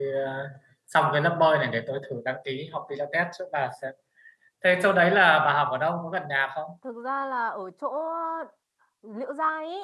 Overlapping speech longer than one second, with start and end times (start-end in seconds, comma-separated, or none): none